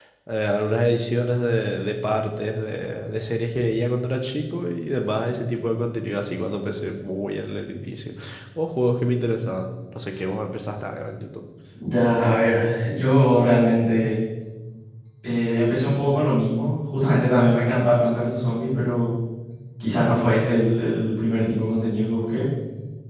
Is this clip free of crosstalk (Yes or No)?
Yes